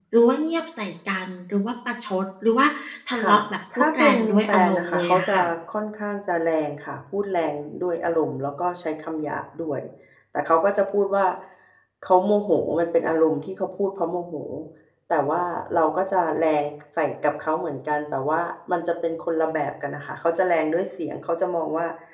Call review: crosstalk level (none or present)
present